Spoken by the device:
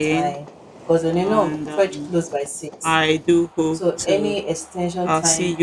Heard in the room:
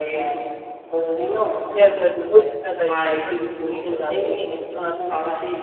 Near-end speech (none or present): present